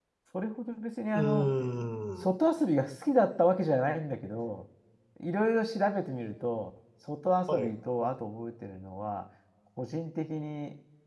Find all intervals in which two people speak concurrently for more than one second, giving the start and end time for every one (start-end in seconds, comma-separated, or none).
none